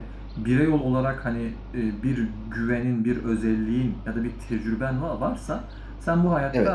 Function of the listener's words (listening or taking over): listening